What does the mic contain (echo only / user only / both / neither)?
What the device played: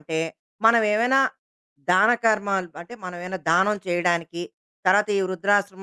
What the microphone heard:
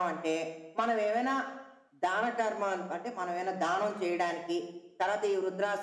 echo only